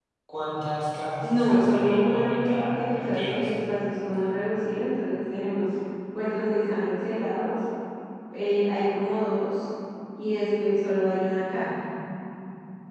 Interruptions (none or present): present